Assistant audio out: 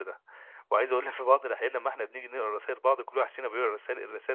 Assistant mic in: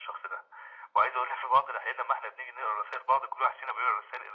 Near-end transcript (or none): none